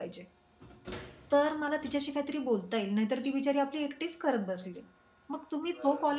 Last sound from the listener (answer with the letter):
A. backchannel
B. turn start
A